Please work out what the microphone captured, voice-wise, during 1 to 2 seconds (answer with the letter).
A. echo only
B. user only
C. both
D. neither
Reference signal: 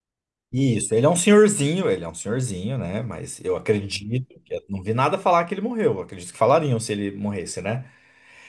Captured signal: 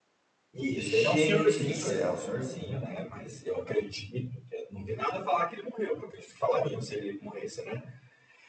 C